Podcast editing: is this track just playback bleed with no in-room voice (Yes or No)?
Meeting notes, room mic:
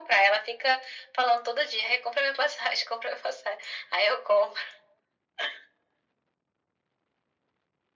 Yes